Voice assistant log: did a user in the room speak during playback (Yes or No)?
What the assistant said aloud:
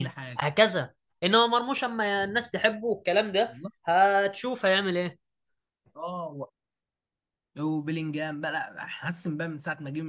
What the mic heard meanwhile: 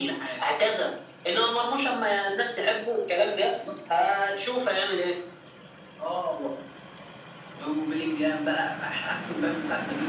No